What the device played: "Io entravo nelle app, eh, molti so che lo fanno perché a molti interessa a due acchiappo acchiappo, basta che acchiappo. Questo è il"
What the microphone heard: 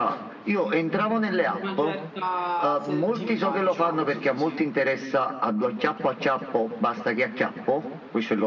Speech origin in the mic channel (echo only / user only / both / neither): both